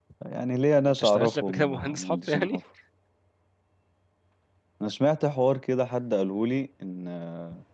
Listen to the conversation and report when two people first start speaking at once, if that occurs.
0.9 s

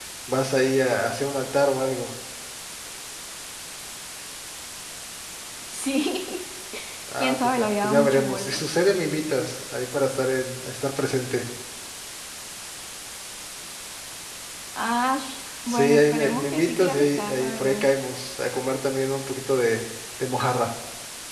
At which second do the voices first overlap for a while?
7.2 s

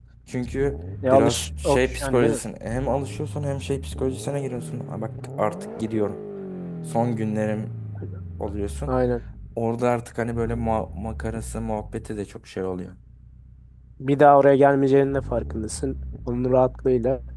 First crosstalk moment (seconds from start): 1.1 s

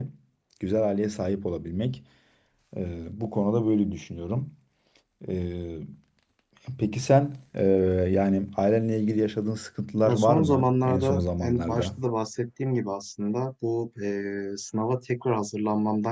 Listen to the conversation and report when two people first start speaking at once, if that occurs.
10.1 s

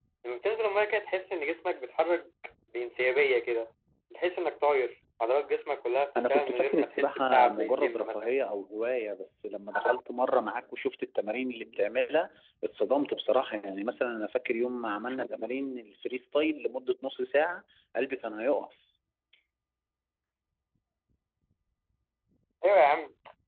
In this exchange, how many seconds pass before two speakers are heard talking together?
6.2 s

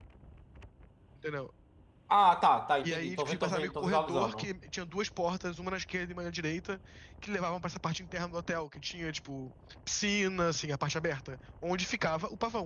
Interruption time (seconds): 2.8 s

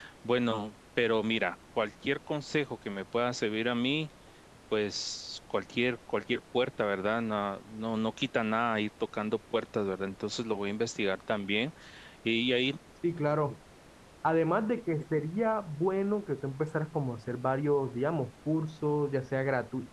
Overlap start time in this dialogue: none

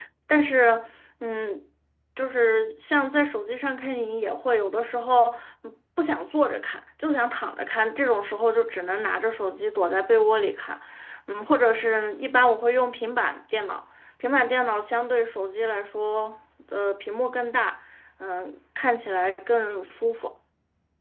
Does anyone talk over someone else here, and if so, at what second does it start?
none

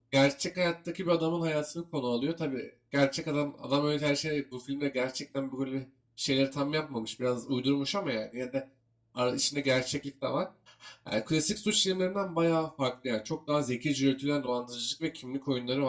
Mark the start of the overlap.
none

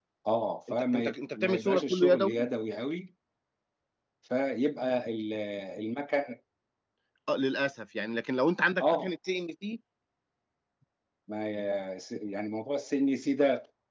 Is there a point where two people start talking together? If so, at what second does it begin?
0.7 s

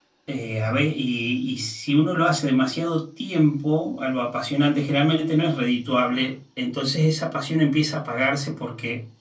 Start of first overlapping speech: none

